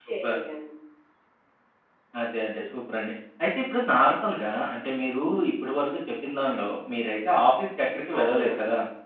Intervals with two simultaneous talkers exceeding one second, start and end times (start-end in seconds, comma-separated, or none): none